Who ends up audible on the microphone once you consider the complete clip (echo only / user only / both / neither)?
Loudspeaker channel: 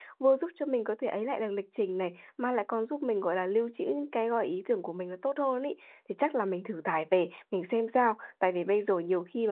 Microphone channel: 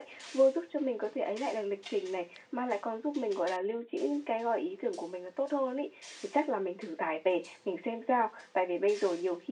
echo only